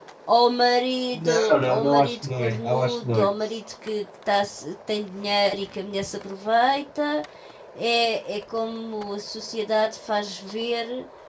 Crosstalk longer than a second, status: present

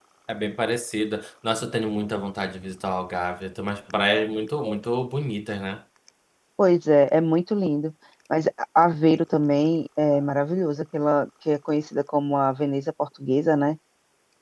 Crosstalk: none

